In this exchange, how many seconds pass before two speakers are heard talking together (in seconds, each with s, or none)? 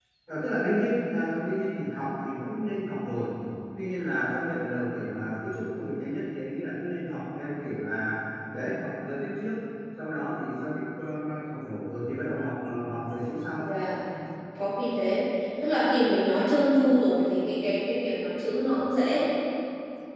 none